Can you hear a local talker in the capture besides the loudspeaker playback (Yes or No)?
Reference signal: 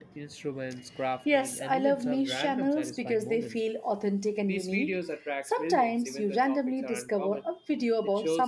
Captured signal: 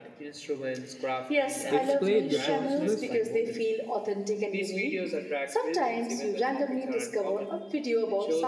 Yes